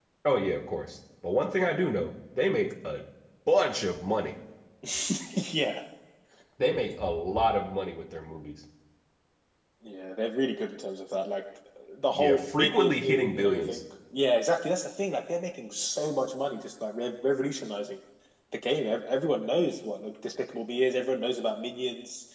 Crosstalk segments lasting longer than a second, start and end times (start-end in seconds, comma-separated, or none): 12.2-13.8